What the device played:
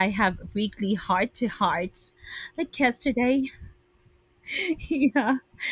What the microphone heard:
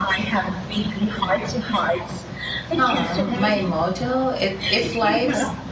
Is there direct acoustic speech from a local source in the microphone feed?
Yes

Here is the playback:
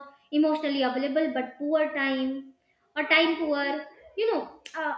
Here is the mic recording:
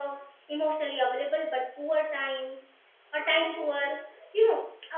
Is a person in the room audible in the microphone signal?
No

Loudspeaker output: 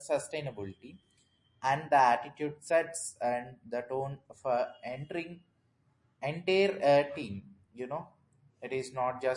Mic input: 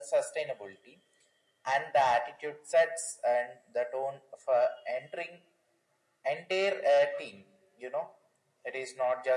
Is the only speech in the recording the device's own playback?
Yes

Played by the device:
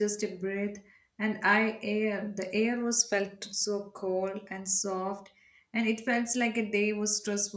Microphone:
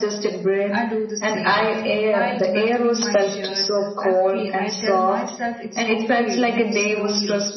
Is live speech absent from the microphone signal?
No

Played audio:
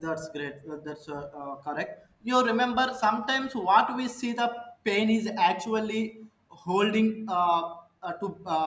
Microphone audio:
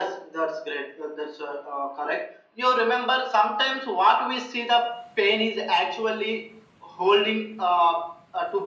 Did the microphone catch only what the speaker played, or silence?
Yes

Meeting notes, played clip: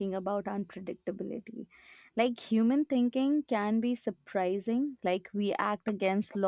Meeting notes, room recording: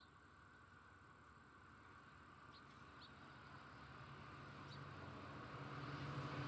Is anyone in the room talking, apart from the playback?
No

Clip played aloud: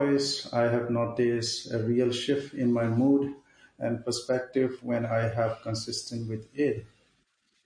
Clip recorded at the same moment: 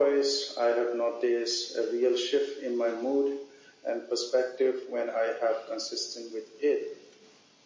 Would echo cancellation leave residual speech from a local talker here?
No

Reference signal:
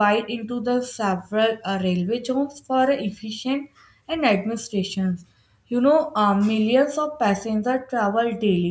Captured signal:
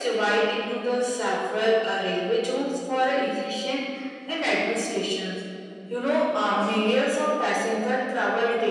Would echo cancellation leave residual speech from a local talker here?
No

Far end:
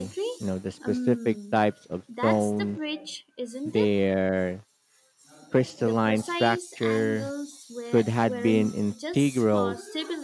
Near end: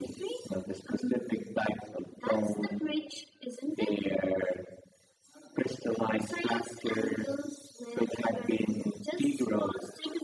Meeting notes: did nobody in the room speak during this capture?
Yes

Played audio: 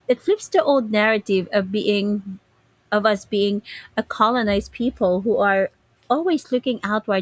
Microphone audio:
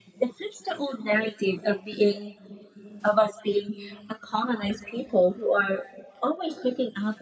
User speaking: No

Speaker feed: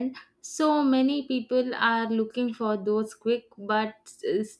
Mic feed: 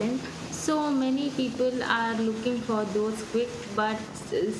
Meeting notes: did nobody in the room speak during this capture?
Yes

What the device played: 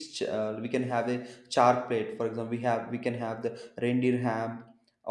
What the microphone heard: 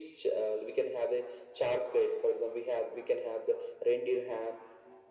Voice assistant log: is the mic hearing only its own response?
Yes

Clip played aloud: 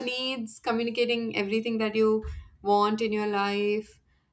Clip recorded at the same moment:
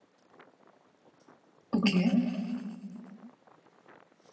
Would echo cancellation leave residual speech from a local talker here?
Yes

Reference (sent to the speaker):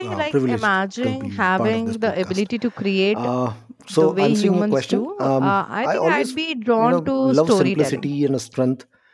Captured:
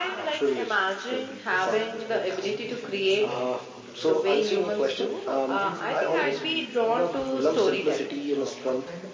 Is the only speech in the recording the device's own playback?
No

